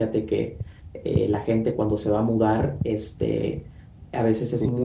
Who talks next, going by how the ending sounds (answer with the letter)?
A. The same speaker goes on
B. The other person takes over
A